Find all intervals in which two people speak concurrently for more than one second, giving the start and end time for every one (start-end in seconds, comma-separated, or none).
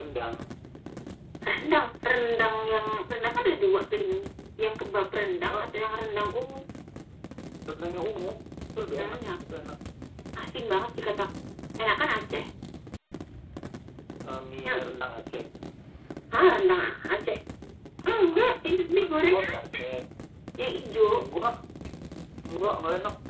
18.2-19.8